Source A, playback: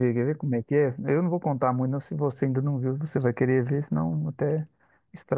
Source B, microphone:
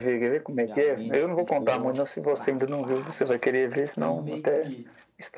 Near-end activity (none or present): present